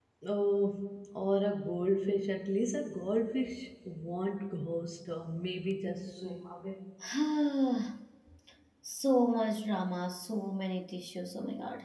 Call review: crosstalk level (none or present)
none